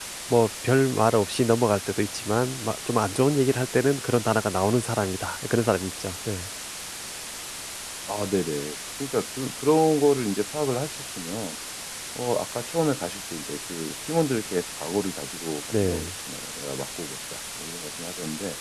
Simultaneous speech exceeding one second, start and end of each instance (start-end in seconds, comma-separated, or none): none